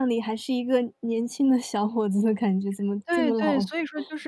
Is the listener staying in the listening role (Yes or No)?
No